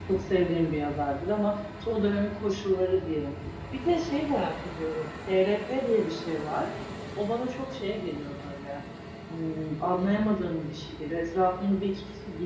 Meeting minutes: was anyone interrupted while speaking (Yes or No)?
No